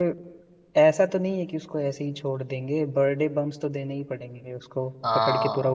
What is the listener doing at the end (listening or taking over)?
taking over